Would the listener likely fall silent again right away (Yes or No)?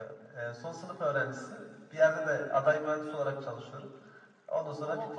No